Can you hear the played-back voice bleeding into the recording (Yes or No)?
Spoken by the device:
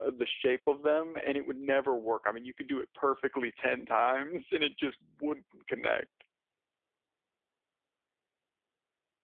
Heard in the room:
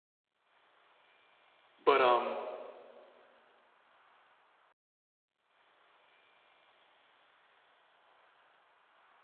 No